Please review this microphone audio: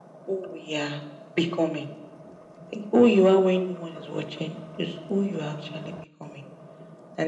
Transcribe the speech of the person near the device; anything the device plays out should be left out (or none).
none